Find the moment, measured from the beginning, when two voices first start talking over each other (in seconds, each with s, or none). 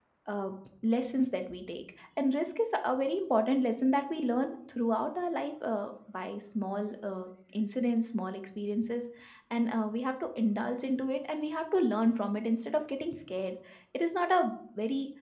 none